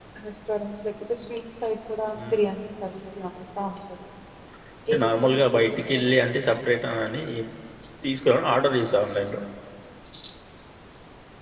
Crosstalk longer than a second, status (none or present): present